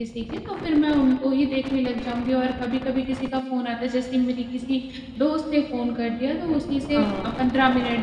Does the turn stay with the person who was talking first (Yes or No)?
Yes